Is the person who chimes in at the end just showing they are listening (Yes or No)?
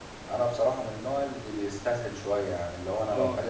Yes